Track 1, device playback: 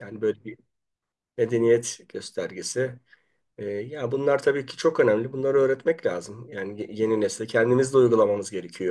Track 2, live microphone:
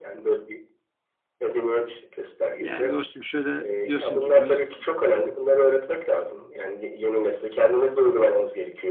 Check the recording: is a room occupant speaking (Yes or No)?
Yes